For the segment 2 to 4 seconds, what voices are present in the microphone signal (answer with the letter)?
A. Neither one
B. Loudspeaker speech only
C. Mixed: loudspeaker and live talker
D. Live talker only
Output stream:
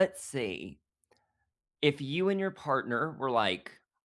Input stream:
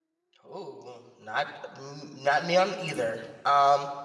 D